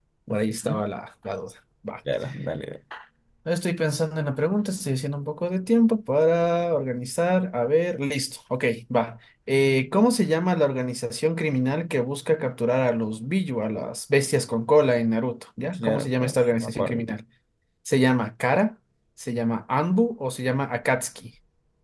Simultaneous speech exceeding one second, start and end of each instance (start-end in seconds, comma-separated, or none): 15.8-17.0